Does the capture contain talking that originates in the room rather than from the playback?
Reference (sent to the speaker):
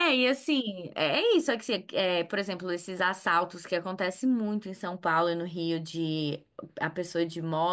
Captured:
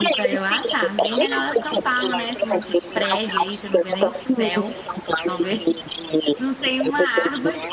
Yes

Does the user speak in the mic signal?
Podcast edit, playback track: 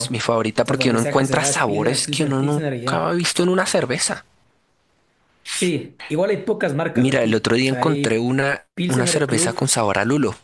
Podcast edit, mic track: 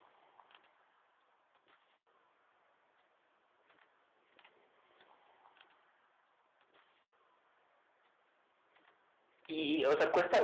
Yes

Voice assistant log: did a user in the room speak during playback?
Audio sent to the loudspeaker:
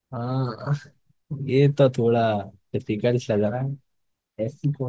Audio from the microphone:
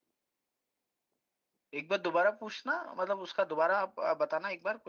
Yes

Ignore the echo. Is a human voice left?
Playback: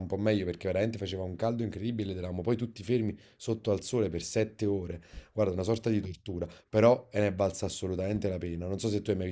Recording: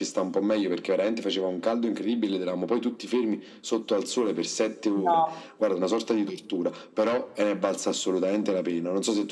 Yes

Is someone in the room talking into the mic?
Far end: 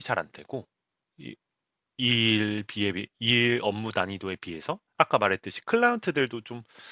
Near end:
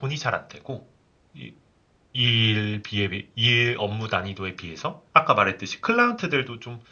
No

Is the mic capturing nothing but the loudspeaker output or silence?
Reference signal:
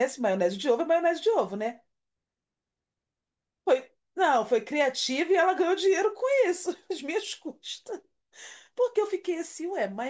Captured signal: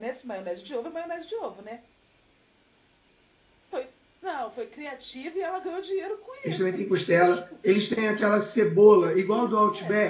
No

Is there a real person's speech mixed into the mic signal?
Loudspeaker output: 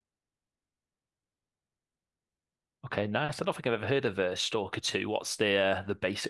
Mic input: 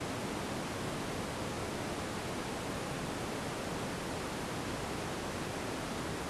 No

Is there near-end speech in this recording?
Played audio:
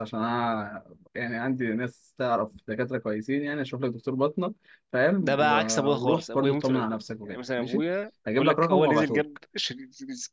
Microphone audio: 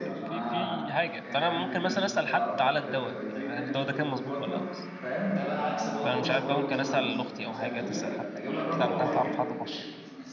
Yes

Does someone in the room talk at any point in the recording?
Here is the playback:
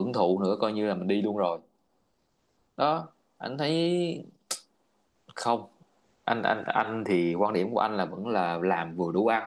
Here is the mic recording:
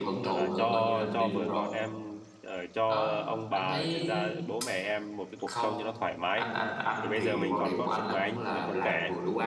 Yes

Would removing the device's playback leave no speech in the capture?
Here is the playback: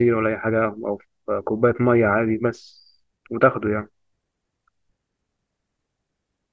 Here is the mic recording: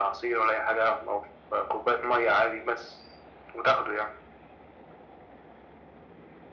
Yes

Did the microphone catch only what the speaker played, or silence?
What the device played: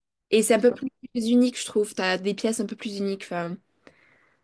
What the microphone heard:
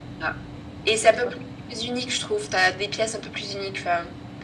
Yes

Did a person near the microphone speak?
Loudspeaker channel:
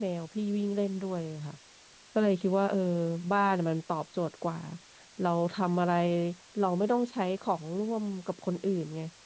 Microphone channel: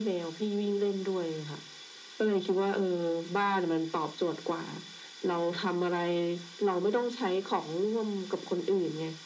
No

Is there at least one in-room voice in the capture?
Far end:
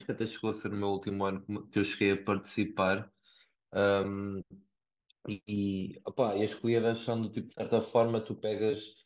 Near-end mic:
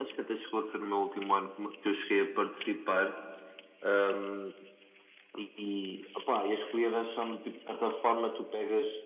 No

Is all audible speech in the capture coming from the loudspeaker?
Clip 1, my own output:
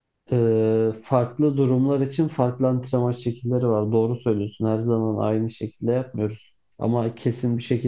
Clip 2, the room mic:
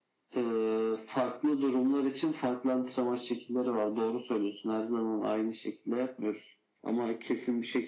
Yes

